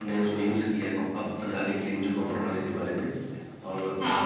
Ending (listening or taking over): taking over